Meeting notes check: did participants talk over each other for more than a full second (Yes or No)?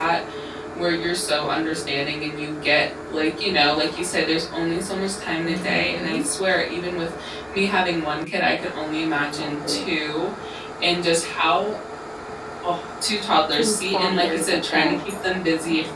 Yes